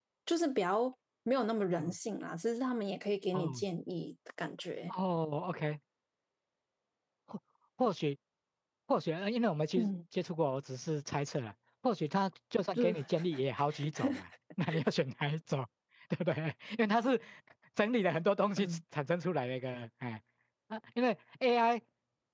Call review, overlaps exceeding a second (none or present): none